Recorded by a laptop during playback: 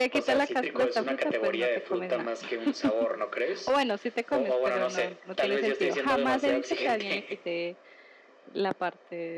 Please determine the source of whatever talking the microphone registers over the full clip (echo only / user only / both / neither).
both